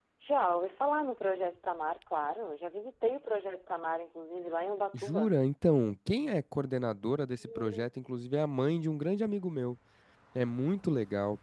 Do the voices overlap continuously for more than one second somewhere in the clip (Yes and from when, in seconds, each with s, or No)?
No